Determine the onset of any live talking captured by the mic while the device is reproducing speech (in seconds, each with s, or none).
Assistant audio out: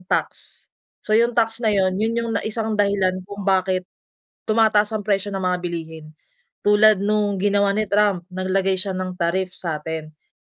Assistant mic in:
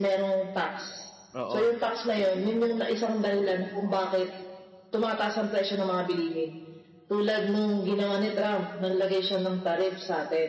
1.4 s